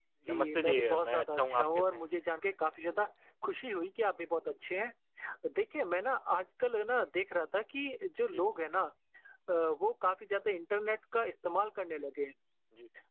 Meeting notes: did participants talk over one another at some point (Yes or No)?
Yes